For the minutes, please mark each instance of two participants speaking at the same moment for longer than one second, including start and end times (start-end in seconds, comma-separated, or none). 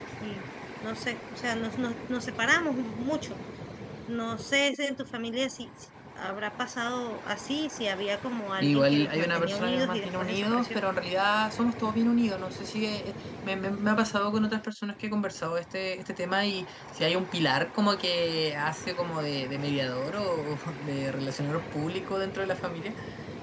8.6-10.8